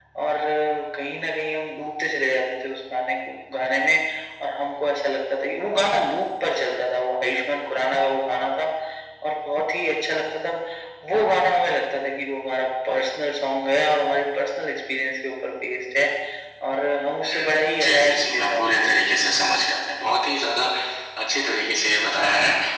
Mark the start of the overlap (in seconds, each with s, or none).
17.3 s